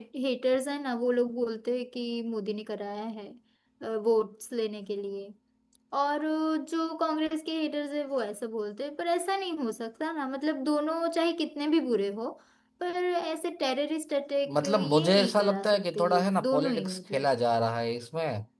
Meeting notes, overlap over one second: present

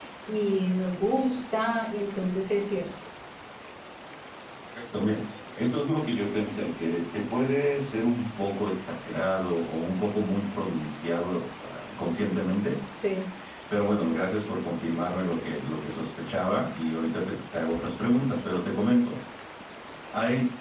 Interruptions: none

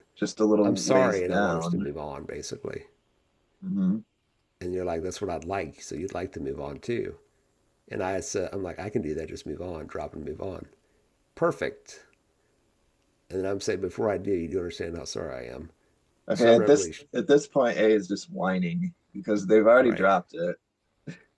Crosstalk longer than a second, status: present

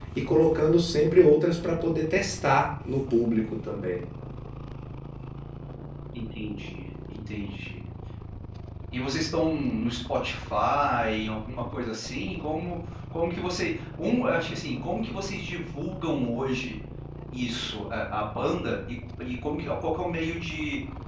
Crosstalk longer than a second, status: none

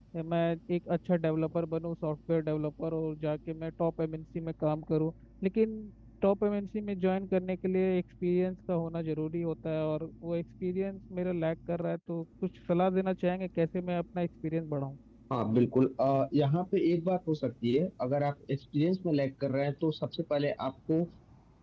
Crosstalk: none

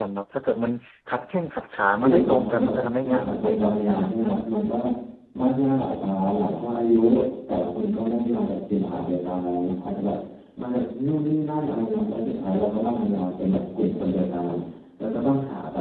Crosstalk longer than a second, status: present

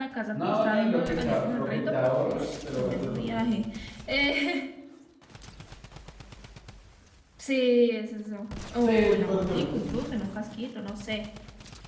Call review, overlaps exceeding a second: present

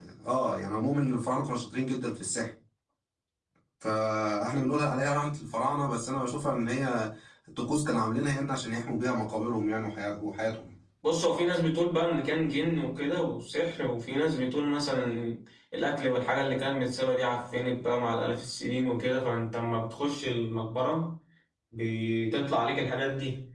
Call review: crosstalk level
none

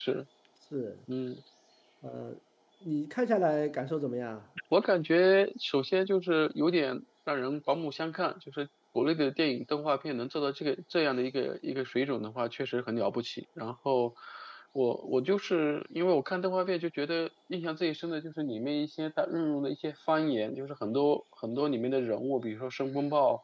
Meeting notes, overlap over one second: none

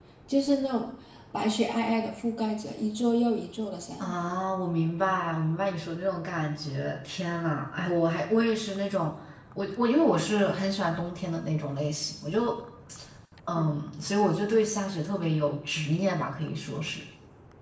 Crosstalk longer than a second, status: none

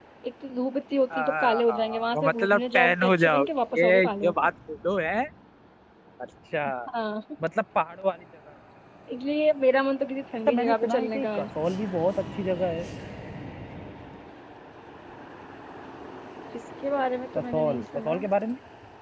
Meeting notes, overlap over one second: present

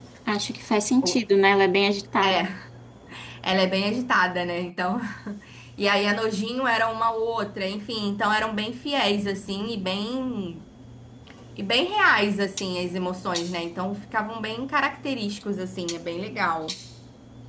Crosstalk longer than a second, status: none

